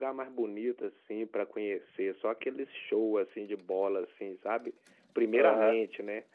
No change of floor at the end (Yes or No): Yes